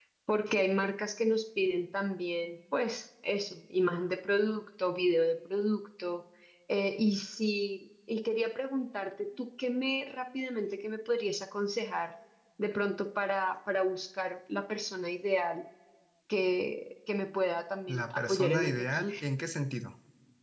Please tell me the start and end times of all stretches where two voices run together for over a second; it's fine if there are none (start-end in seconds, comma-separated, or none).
17.9-19.1